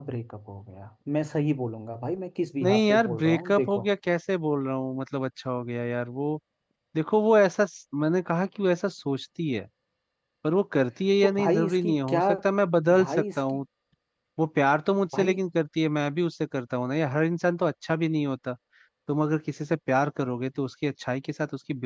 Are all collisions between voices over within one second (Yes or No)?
No